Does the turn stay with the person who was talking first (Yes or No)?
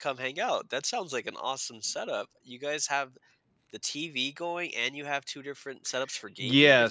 No